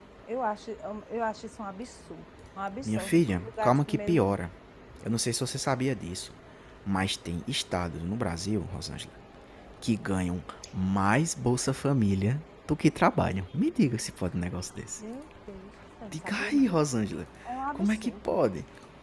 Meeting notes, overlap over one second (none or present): present